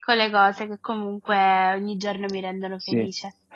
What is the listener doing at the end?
taking over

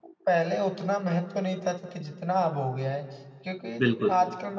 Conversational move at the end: listening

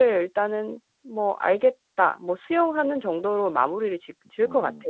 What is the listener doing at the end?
taking over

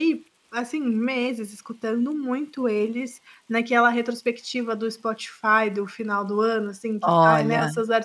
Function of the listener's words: listening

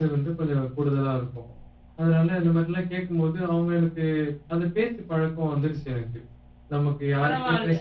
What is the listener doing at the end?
taking over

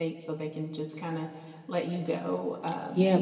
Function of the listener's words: taking over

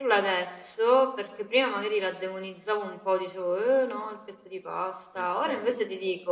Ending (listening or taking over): listening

